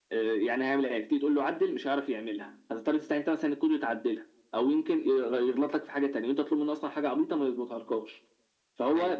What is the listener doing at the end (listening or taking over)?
listening